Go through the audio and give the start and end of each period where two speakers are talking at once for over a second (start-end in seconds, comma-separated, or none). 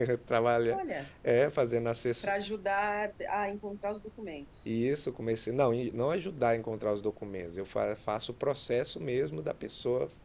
none